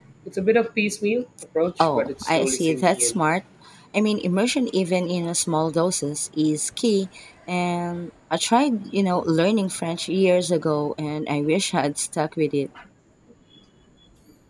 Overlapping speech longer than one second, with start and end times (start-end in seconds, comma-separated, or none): 1.8-3.1